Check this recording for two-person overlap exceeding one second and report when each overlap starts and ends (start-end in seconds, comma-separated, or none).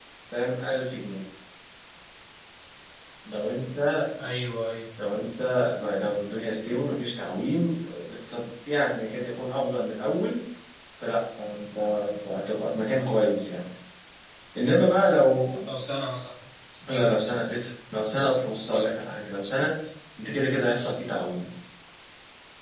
none